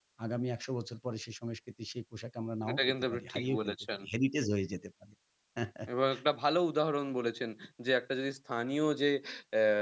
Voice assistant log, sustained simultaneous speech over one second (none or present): present